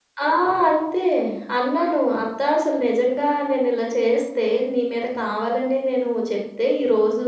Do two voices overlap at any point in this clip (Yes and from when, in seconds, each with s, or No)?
No